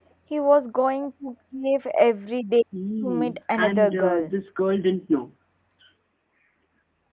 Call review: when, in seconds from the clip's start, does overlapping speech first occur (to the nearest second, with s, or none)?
3 s